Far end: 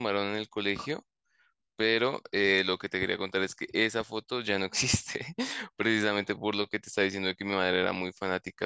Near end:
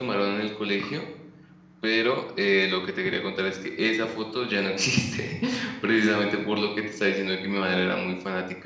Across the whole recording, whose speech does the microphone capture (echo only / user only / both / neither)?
echo only